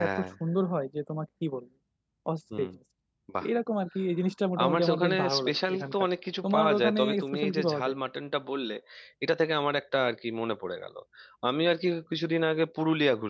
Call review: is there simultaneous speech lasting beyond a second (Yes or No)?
Yes